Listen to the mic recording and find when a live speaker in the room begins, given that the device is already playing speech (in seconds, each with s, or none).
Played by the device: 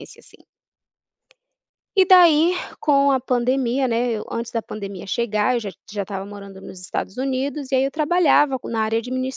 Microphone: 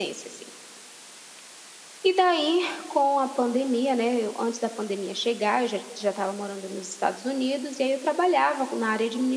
none